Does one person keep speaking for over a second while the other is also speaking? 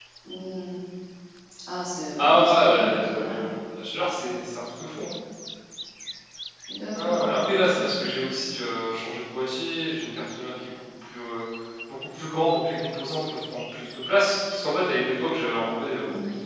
Yes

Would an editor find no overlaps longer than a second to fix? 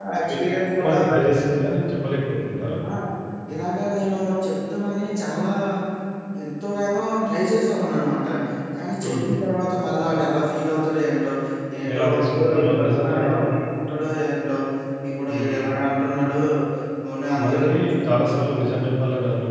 No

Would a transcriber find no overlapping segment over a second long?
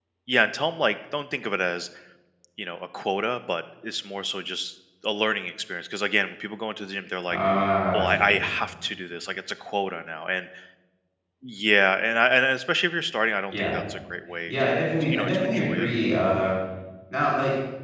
No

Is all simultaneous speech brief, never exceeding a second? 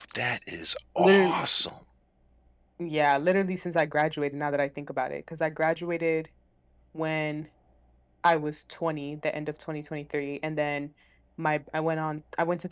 Yes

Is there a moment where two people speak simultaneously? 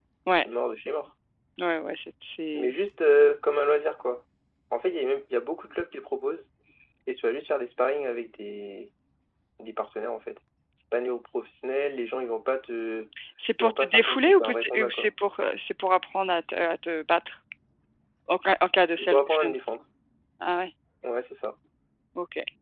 Yes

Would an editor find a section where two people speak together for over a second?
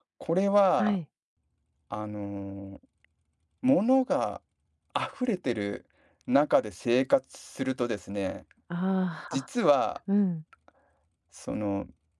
No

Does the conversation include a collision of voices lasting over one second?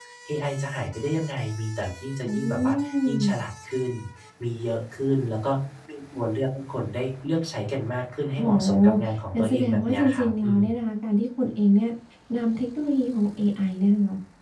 Yes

